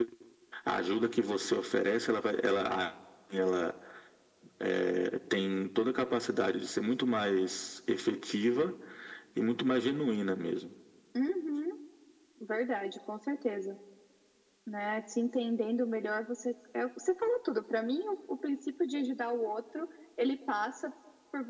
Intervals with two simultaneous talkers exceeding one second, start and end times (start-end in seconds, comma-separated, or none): none